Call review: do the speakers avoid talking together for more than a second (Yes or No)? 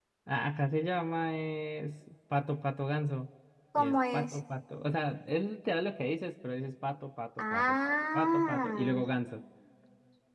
No